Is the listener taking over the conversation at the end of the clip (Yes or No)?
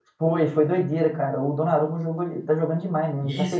Yes